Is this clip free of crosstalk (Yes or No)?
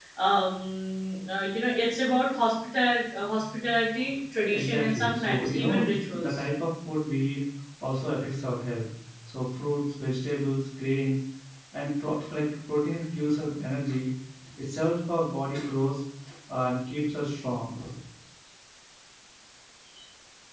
No